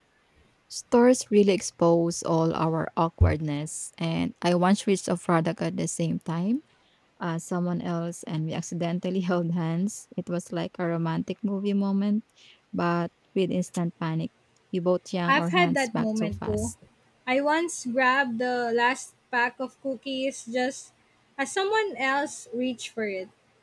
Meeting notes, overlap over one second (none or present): present